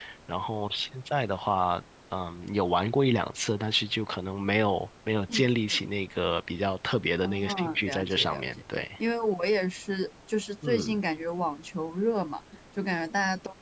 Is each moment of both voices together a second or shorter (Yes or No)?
No